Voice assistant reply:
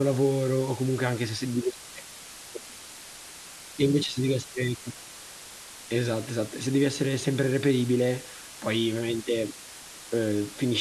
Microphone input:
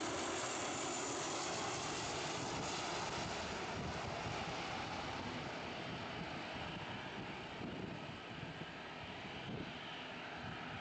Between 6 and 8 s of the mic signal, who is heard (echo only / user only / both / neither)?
neither